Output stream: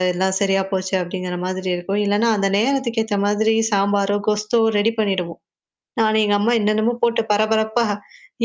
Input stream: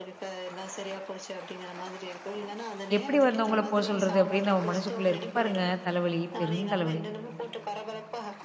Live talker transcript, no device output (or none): எப்படி வந்தவங்கள போக சொல்றது அப்டின்னு நம்ம மனசுக்குள்ள இருக்கும் பாருங்க தலைவலி. பெரும் தலைவலி.